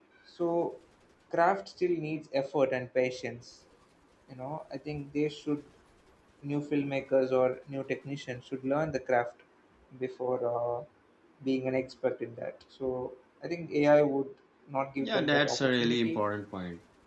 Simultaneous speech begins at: 15 s

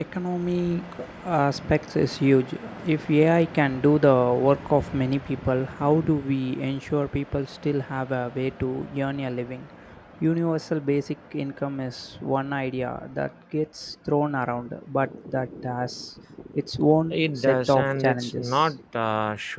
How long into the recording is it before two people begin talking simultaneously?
17 s

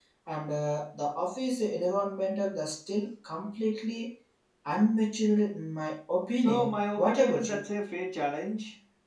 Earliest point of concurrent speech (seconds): 6 s

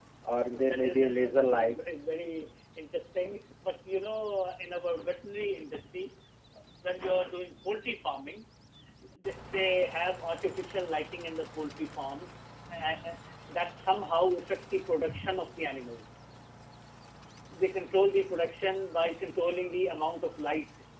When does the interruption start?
1 s

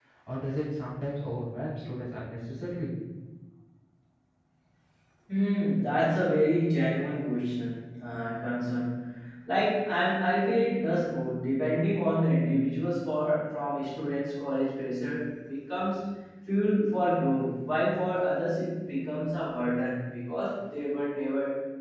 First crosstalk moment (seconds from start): none

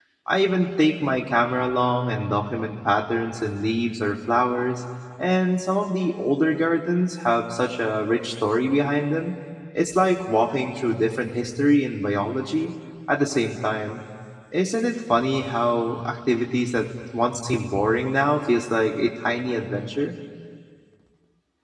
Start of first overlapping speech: none

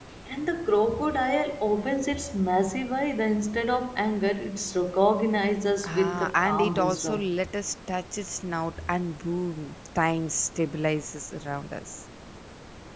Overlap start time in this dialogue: 6 s

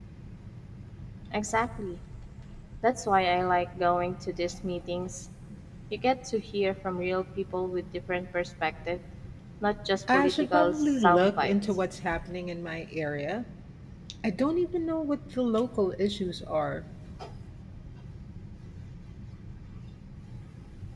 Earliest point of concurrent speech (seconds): 10 s

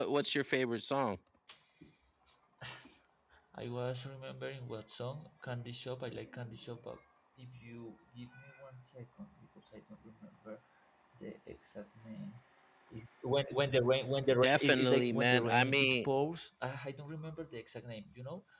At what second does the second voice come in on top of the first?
14 s

